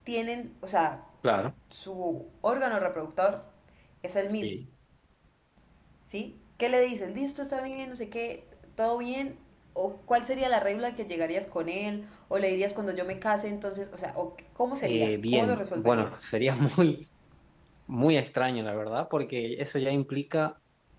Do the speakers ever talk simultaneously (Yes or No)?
Yes